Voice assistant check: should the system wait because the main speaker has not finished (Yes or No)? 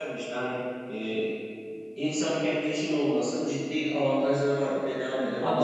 No